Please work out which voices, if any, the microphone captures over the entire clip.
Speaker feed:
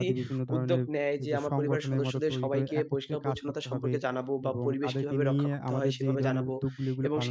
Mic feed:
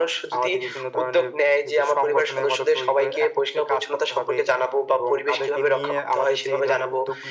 echo only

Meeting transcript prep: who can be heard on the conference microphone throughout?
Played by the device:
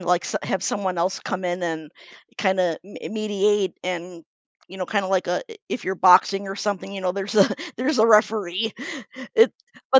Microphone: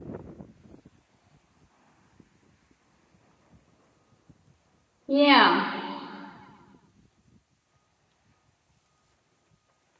user only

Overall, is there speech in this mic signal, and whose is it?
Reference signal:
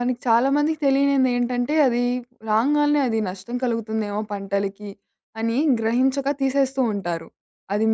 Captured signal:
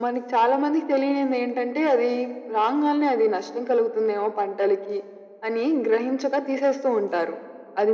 echo only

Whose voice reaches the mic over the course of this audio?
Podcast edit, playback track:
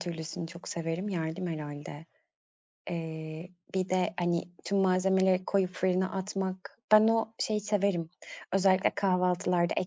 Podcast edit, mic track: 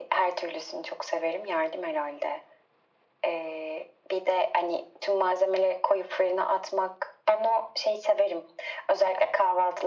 echo only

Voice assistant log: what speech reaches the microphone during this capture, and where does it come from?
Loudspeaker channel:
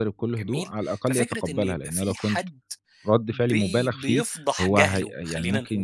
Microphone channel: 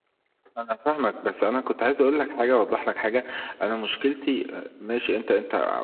user only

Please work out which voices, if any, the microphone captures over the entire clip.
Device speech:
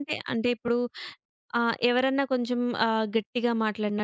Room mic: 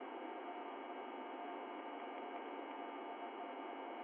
neither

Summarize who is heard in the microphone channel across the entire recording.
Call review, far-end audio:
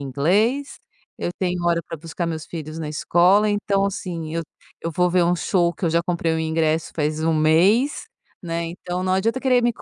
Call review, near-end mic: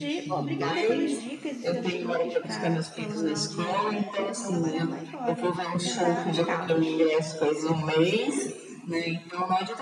both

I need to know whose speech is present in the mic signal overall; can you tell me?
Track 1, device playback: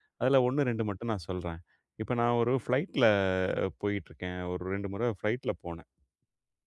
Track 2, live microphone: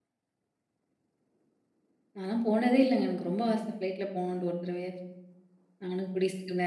user only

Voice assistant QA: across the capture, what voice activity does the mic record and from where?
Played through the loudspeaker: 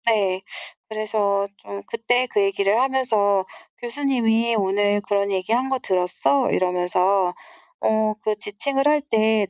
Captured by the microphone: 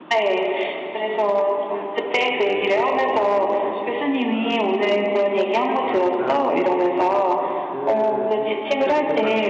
both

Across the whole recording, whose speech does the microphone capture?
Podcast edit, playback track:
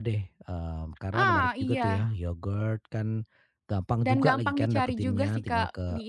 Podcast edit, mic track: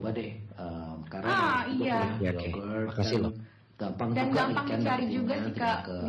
both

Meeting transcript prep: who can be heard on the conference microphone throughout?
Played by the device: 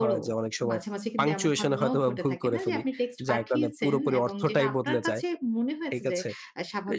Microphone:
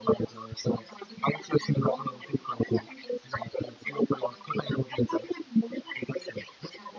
echo only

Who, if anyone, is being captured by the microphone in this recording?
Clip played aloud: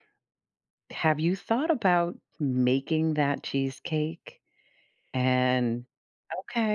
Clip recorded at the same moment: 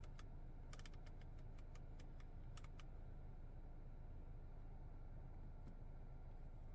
neither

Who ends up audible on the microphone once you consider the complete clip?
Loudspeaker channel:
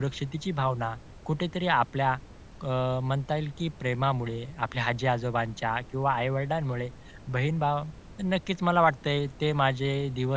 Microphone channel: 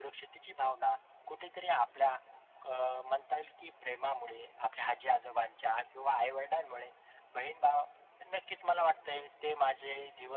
echo only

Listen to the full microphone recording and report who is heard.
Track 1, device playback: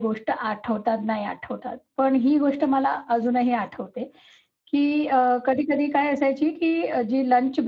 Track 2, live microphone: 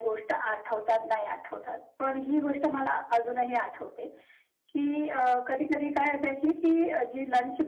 echo only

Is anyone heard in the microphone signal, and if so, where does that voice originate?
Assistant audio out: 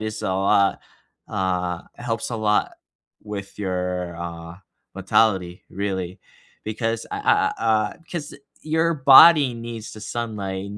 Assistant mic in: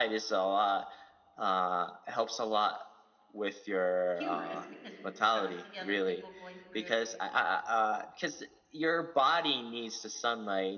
both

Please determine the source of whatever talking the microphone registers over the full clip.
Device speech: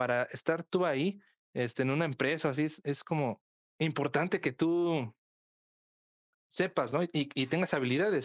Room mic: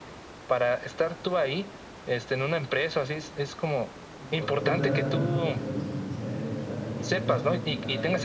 both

